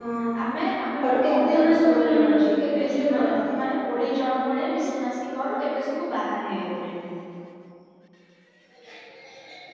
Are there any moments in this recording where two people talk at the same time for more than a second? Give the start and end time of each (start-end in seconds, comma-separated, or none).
1.0-3.4